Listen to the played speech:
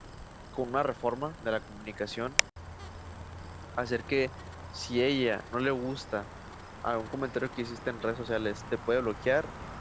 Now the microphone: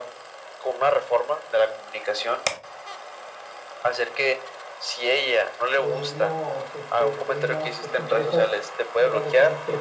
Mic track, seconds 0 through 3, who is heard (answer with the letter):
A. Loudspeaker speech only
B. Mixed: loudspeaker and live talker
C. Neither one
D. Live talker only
A